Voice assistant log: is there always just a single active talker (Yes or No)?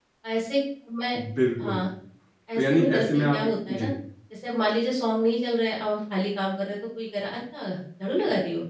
No